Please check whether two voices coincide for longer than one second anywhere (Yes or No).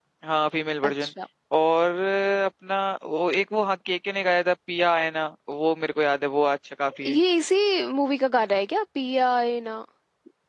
No